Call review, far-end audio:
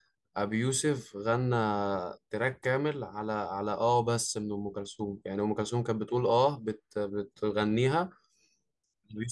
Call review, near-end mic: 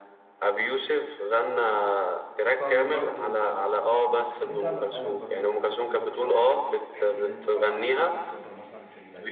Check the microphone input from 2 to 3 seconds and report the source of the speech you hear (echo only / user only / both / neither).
both